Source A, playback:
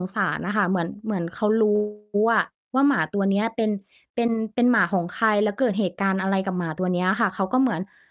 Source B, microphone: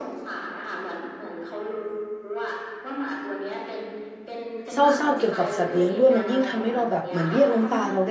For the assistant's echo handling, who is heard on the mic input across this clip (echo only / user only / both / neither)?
both